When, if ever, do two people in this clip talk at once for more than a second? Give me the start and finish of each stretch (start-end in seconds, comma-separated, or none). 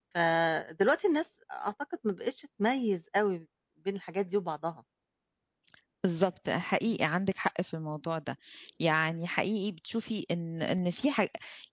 none